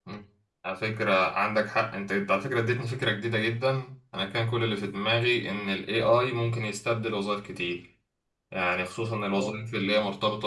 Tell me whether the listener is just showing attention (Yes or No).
Yes